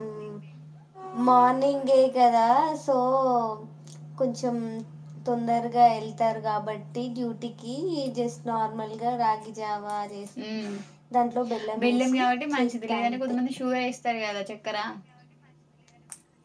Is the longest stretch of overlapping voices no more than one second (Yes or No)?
No